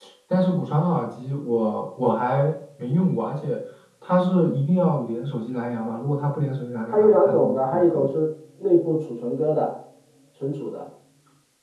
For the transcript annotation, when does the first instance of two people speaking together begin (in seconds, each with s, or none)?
6.9 s